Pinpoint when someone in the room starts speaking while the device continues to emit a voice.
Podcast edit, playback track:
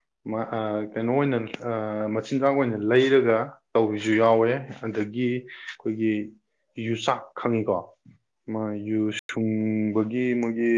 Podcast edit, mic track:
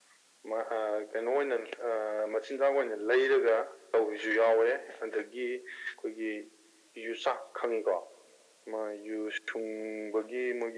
none

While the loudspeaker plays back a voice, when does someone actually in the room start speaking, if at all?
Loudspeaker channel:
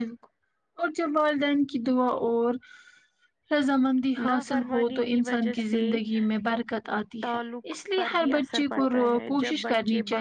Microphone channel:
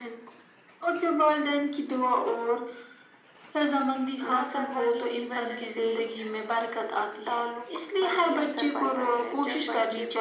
none

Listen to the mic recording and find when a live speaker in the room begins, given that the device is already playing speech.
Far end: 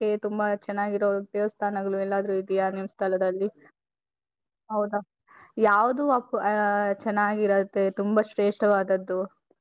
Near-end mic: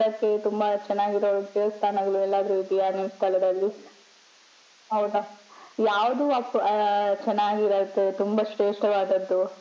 none

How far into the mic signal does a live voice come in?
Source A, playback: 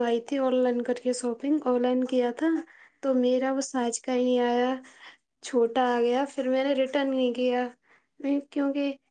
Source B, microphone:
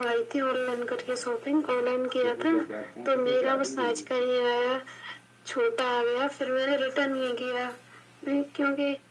2.2 s

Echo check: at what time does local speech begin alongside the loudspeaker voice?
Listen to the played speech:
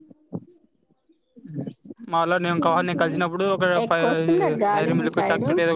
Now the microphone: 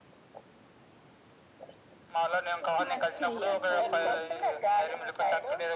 2.8 s

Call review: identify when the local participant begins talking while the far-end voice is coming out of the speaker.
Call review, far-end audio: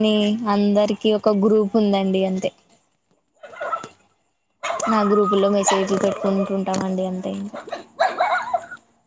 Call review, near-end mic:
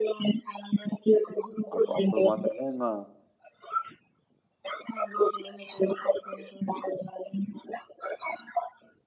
1.7 s

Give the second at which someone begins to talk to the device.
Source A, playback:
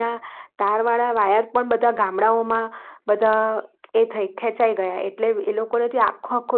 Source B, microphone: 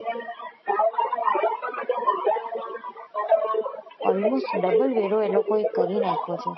4.1 s

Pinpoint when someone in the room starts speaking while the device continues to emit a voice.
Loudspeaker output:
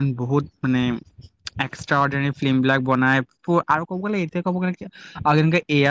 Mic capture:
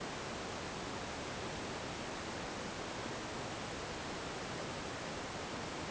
none

